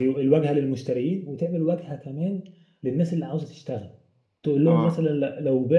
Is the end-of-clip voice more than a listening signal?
No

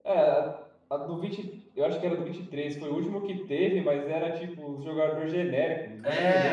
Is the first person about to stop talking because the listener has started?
Yes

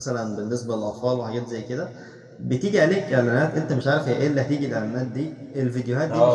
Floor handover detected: No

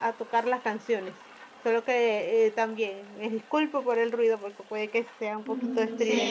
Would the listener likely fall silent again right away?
No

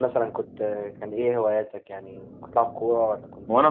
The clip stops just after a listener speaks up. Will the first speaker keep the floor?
No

